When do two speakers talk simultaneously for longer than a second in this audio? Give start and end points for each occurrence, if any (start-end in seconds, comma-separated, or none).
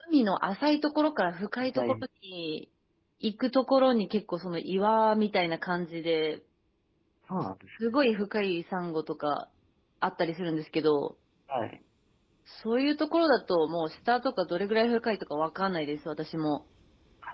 none